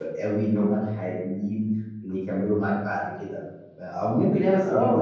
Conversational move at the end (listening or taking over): taking over